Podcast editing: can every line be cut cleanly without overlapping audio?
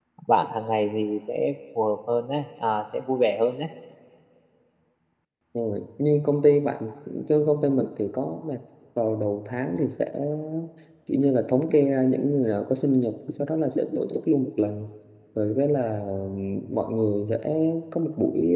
Yes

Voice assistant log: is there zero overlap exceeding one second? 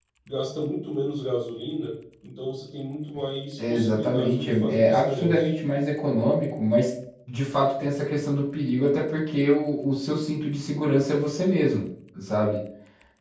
No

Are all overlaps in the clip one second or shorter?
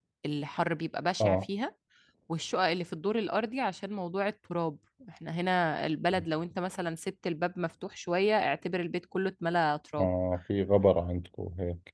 Yes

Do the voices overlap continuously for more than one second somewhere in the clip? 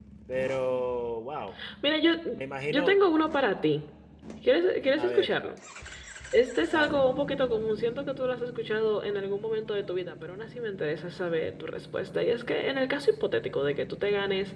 No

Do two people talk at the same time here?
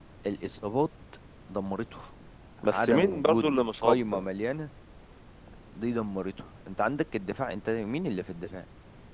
Yes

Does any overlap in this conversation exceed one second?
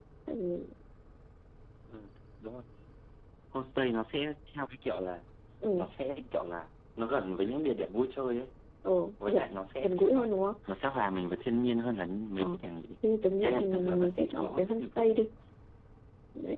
Yes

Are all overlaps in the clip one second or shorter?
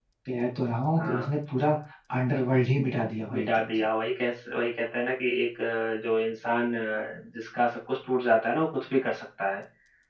Yes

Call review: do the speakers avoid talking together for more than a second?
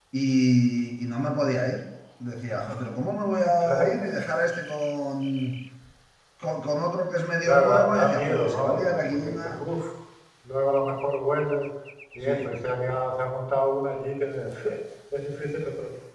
No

